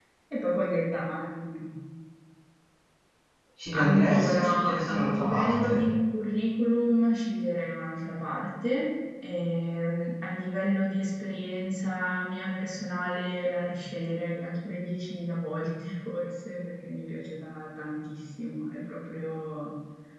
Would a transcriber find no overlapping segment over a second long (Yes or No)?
No